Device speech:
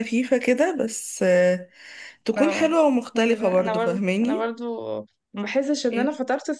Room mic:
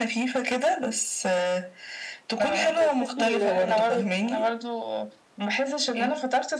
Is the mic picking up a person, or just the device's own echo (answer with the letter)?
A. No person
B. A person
B